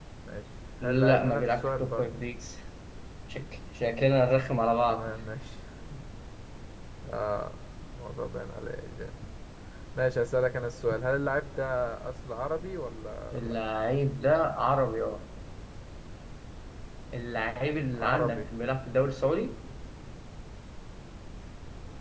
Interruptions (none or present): present